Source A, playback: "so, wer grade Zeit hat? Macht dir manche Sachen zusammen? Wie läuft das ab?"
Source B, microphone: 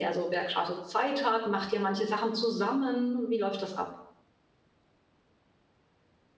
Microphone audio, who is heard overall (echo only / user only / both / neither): echo only